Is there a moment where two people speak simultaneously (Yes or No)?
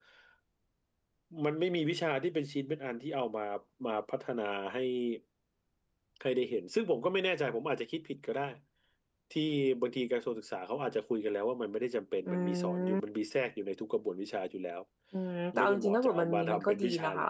Yes